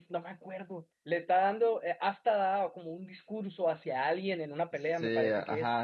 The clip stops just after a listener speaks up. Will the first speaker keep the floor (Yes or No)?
No